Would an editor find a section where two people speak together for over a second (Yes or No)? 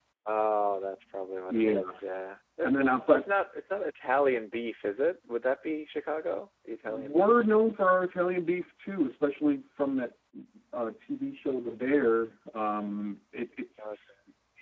No